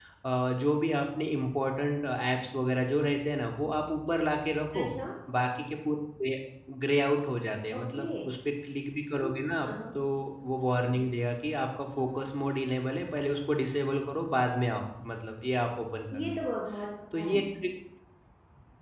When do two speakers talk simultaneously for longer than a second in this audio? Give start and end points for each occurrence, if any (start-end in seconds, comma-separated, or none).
none